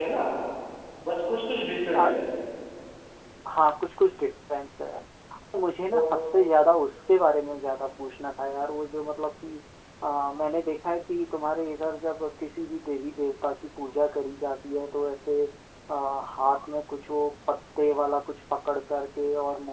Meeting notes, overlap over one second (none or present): none